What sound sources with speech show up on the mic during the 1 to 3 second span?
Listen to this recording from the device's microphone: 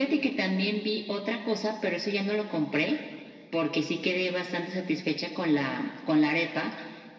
echo only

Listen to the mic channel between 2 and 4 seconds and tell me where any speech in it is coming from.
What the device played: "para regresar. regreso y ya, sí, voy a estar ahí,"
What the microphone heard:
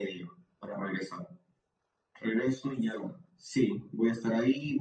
echo only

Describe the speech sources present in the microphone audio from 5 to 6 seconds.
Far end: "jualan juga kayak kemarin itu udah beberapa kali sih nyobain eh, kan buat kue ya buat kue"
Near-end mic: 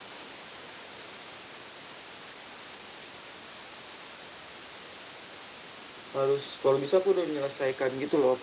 neither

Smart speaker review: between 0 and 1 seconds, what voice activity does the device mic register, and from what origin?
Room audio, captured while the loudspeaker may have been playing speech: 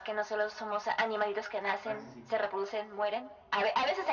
echo only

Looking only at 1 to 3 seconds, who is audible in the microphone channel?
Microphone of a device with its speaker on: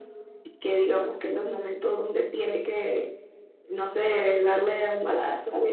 echo only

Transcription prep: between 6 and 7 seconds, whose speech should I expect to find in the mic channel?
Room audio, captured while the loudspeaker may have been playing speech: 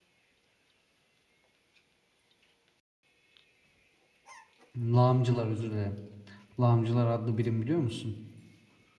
user only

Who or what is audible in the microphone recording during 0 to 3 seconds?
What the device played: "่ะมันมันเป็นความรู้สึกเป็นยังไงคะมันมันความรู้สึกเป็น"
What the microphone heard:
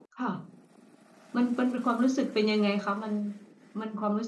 echo only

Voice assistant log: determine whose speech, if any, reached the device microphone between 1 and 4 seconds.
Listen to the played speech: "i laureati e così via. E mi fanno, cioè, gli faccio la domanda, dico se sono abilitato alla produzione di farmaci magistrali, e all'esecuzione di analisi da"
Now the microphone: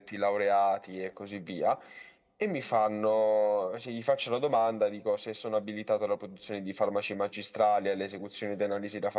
echo only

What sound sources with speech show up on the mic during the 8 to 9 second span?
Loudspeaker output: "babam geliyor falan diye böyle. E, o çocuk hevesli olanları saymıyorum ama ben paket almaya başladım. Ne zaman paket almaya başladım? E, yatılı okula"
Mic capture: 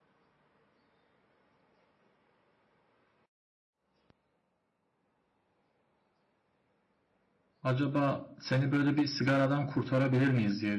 user only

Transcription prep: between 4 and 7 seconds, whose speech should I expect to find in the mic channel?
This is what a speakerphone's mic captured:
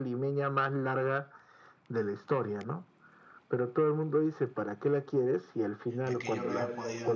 both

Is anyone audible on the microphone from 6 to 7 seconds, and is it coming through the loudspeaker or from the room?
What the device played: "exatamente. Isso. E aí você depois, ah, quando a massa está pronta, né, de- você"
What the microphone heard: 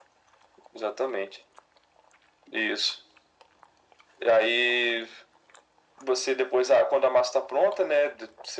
echo only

